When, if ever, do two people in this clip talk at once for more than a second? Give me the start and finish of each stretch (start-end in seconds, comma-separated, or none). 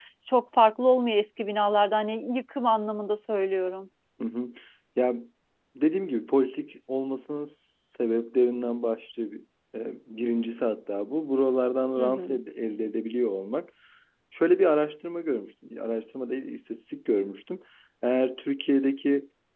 none